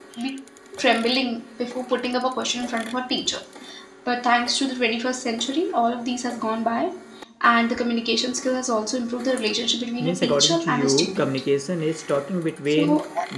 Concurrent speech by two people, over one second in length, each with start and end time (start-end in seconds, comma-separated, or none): 10.0-11.4